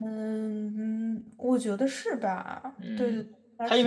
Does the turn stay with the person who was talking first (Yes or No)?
No